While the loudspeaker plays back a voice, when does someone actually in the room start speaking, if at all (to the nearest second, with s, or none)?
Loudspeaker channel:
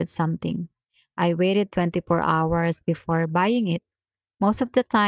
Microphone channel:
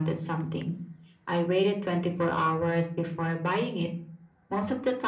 none